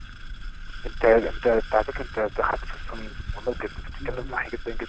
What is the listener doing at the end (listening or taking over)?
listening